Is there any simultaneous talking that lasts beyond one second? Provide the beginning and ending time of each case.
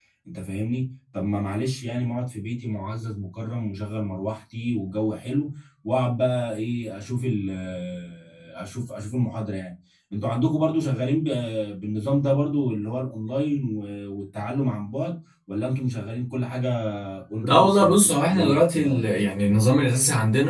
17.4-19.6

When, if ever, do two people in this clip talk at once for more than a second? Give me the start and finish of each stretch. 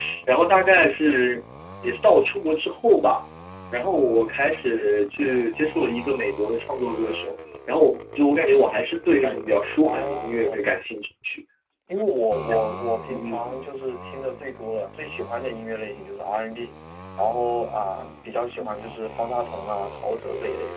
9.2-10.6

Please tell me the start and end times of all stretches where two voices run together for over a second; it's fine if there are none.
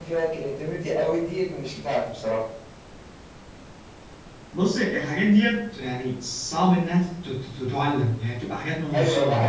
none

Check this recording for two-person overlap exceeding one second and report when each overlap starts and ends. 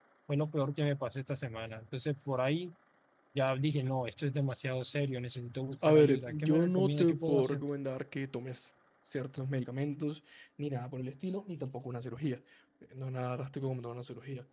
5.9-7.6

